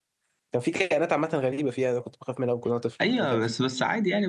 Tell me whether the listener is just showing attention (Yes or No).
No